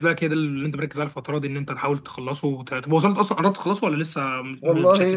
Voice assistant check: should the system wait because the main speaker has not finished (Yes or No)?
No